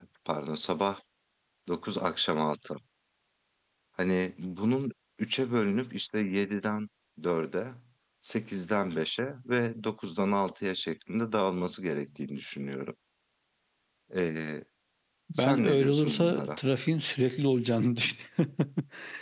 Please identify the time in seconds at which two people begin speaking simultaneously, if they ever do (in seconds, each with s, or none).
15.4 s